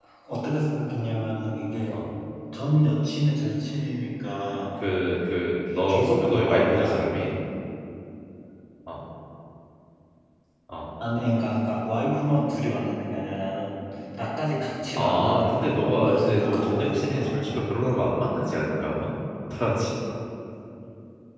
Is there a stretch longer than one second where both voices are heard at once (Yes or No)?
Yes